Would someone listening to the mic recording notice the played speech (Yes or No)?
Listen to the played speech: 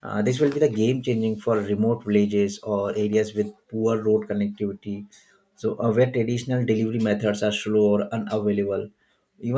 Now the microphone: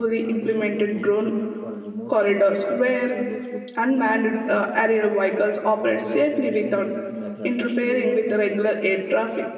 Yes